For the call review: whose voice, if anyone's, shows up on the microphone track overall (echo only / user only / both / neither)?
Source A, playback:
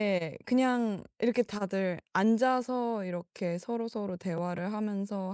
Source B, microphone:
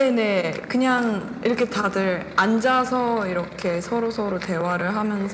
echo only